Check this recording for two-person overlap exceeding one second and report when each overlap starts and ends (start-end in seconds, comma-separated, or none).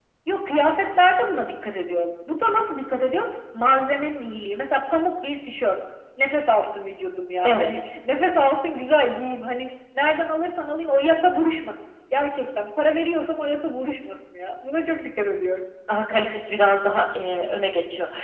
none